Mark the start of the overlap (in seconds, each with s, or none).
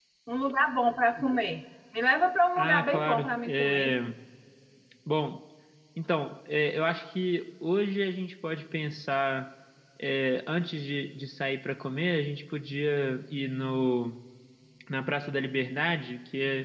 2.6 s